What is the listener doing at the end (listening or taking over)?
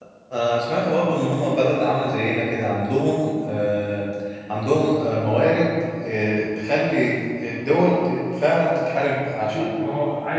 taking over